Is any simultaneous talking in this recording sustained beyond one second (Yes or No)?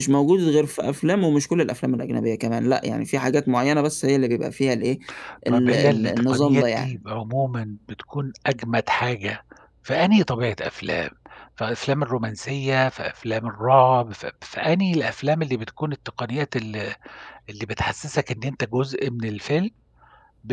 Yes